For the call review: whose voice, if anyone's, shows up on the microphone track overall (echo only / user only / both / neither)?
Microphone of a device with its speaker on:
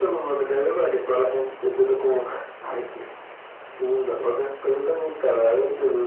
echo only